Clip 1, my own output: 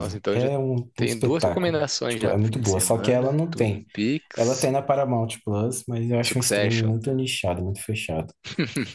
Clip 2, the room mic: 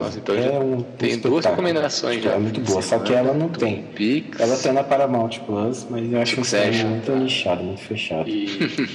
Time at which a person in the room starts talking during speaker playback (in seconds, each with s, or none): 6.5 s